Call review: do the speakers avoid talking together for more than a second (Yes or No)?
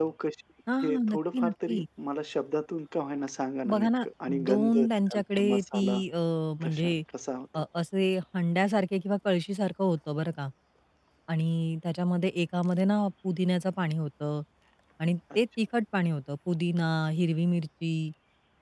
No